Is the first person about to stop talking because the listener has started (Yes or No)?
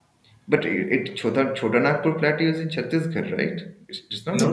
Yes